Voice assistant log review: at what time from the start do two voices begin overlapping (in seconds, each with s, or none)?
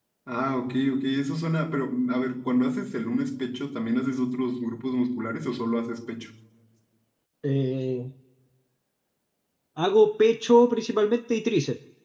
none